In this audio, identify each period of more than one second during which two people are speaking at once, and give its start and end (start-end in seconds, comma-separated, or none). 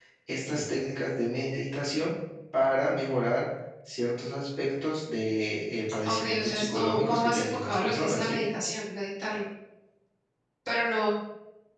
6.0-8.4